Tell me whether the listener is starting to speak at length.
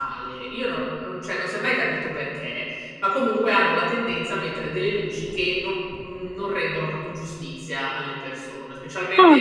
No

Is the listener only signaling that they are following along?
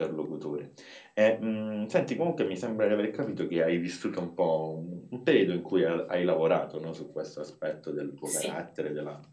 Yes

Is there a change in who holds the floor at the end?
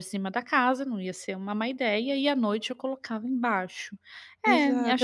Yes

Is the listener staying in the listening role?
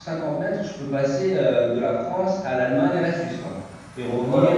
No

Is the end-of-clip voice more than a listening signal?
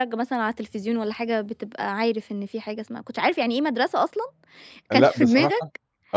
Yes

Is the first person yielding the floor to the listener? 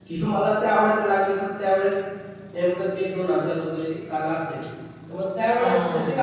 No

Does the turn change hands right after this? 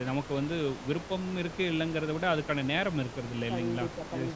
Yes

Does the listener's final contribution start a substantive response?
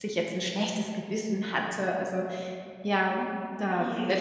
Yes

